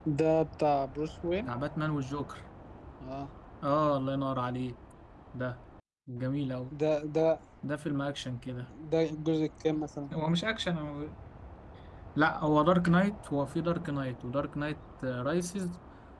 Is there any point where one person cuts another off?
No

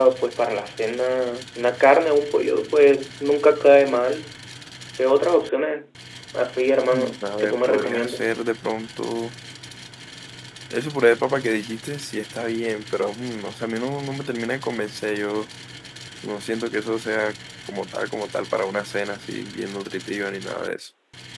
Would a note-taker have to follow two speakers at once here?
Yes, from 6.9 s

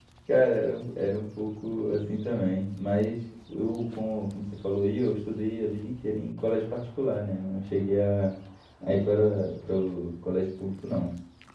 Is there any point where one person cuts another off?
No

